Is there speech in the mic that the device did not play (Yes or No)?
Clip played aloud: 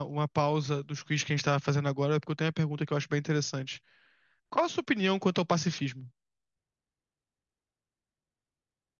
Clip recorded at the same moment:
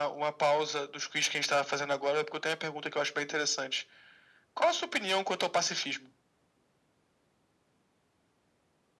No